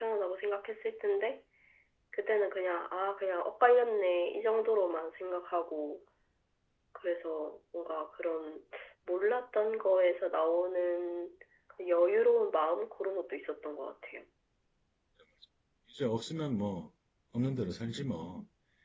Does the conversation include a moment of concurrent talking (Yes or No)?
No